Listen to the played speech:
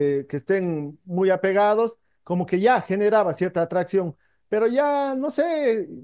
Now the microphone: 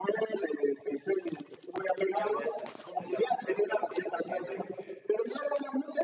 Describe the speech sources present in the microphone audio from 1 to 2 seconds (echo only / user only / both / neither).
echo only